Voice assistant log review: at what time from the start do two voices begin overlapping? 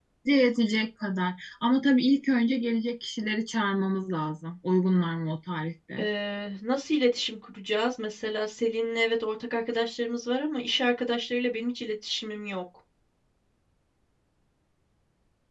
none

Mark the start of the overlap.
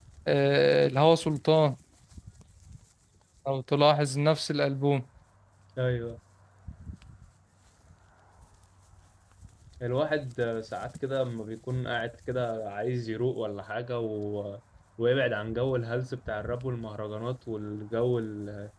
none

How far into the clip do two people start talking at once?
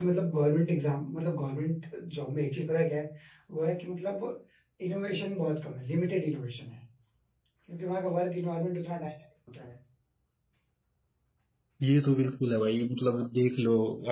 none

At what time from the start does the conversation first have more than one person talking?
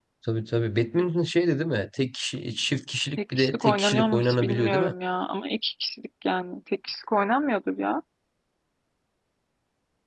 3.3 s

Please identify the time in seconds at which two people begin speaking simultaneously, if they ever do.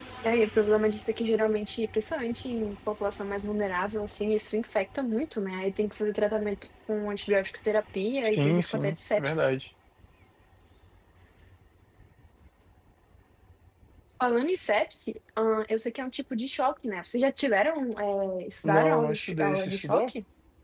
8.2 s

